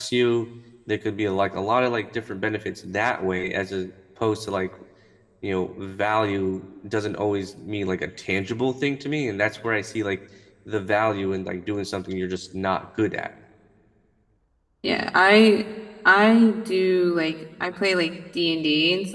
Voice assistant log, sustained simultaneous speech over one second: none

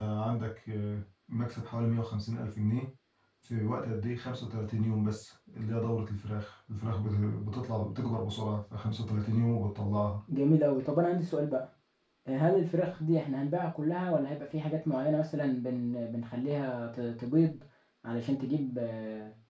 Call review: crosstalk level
none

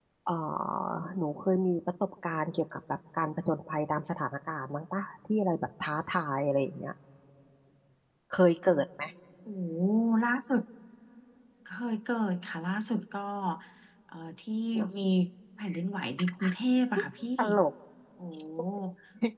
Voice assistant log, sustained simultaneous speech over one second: none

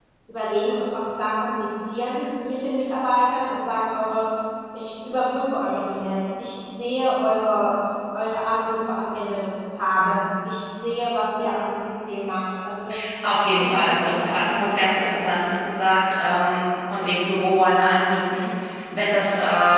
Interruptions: present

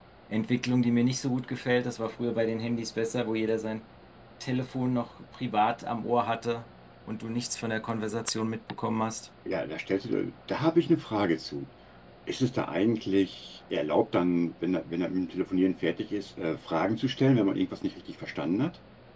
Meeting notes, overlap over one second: none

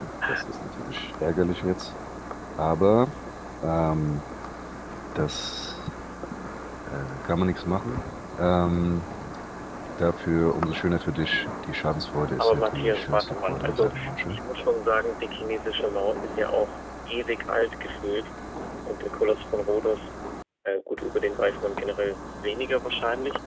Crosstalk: present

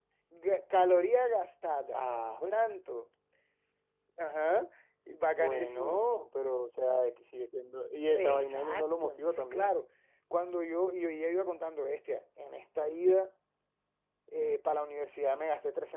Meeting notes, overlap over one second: present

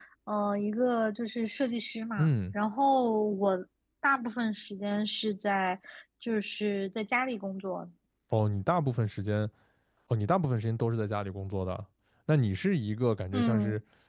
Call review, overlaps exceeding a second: none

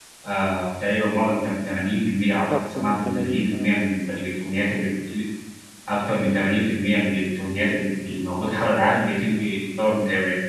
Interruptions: present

